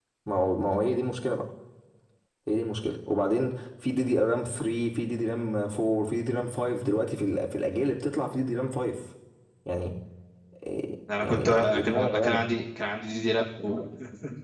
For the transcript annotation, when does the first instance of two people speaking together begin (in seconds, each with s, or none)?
11.2 s